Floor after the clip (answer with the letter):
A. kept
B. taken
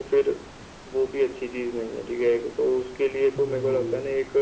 B